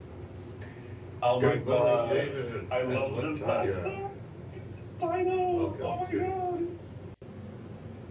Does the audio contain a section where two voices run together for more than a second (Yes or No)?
Yes